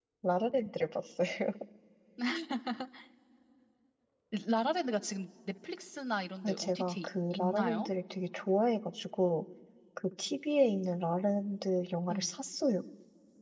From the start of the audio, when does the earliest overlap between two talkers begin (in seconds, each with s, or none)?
6.4 s